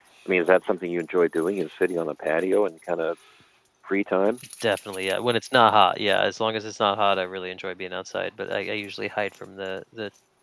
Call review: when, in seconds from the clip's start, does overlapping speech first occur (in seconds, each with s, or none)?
none